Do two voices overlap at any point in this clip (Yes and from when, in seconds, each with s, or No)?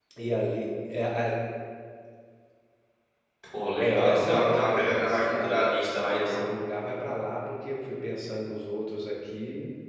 Yes, from 3.8 s